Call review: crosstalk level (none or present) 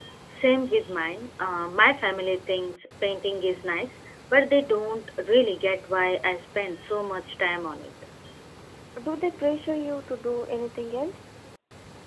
none